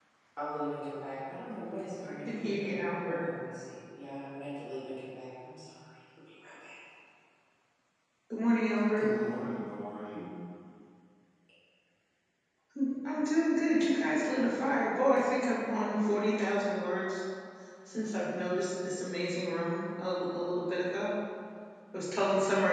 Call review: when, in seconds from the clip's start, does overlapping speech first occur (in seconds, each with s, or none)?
2.0 s